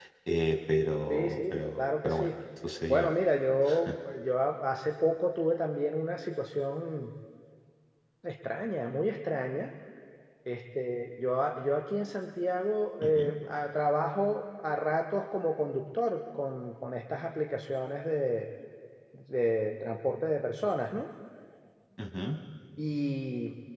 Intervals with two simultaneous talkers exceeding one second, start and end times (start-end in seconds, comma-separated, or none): 1.1-2.3